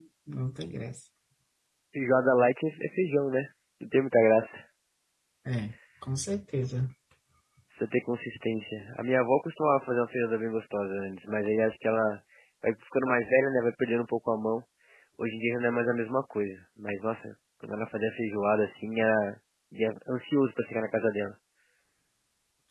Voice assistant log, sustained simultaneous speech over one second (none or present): none